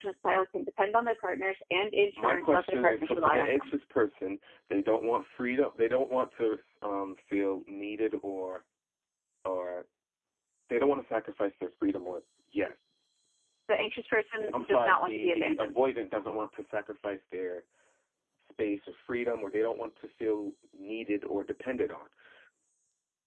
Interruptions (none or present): present